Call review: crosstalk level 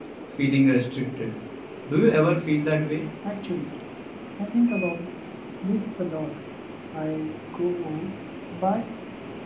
none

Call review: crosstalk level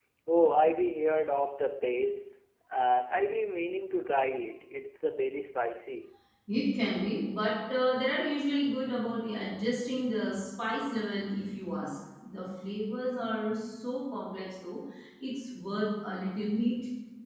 none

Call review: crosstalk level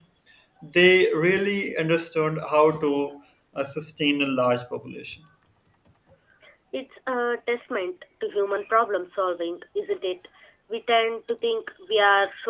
none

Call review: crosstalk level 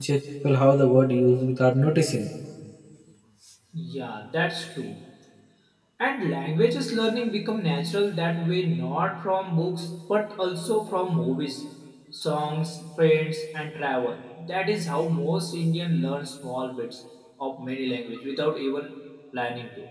none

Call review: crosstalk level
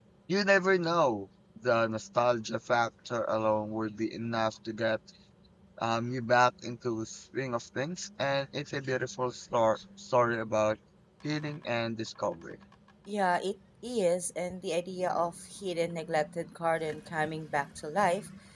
none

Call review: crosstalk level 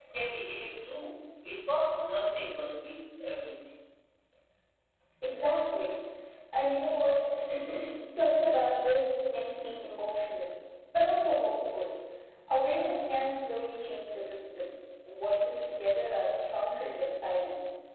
none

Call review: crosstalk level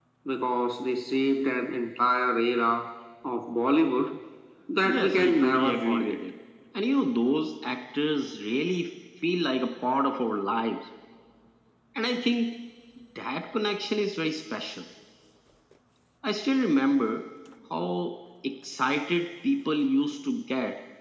present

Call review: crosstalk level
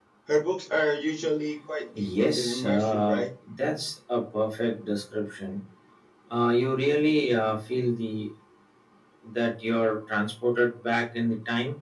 present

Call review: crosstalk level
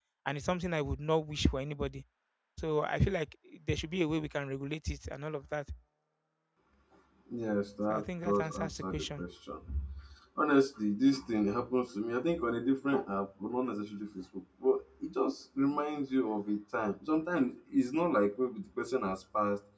present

